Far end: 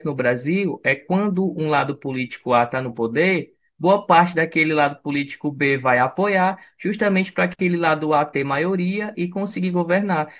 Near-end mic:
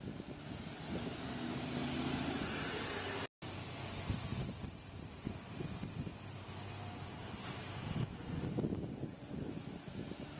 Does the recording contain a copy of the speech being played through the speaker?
No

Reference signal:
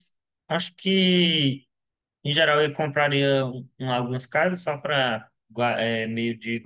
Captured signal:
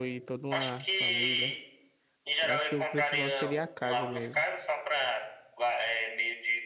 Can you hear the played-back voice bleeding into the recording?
Yes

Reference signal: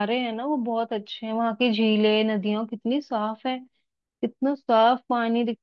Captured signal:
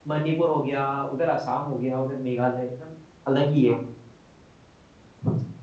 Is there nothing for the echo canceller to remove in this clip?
Yes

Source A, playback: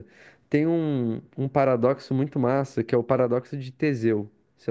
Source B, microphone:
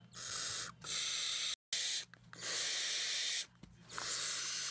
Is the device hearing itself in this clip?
No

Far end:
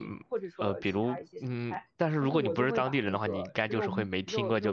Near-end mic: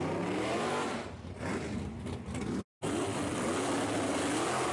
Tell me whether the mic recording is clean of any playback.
Yes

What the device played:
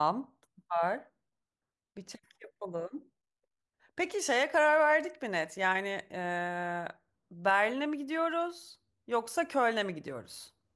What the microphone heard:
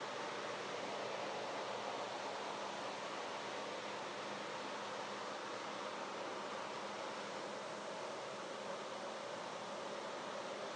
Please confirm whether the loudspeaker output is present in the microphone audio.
No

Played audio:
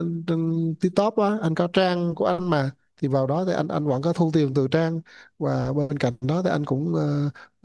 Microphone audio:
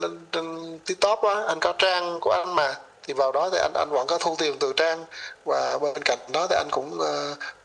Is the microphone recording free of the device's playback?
No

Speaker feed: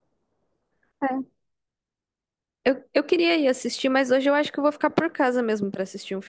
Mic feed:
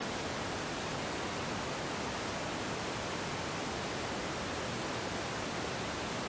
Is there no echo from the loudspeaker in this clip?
Yes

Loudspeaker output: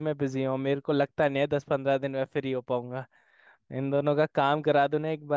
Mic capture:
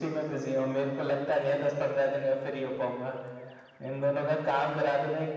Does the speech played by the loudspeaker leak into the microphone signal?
Yes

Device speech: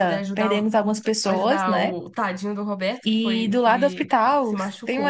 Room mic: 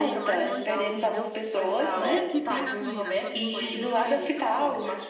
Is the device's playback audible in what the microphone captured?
Yes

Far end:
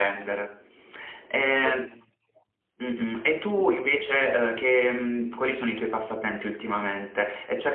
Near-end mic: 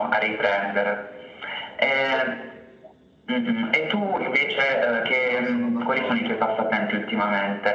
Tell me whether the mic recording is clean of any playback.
No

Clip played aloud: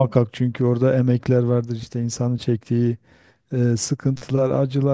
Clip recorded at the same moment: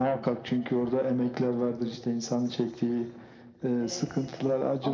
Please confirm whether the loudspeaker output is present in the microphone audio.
Yes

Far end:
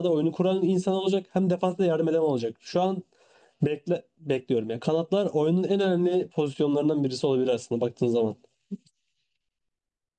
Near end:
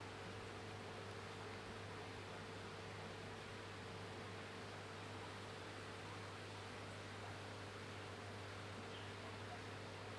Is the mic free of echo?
Yes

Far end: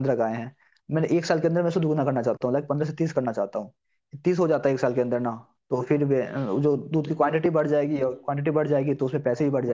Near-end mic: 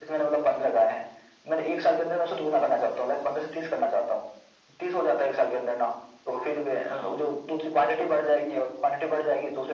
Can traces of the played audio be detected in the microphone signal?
Yes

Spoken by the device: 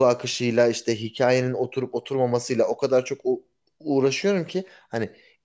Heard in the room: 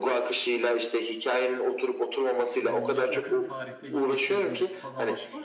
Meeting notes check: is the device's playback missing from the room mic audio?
No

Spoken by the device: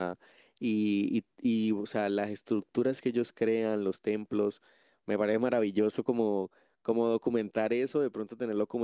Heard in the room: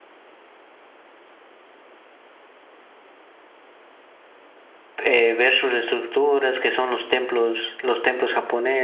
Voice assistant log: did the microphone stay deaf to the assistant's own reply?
Yes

